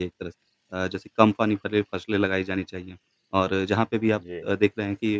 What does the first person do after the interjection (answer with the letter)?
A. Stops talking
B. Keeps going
B